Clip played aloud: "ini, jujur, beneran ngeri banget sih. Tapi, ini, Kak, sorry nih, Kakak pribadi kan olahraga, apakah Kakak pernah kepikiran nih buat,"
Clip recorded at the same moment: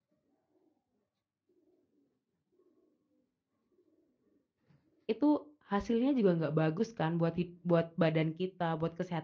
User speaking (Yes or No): Yes